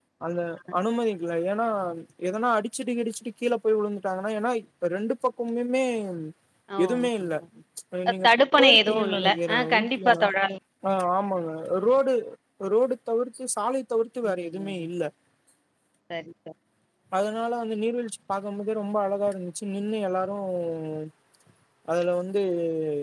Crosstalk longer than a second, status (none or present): present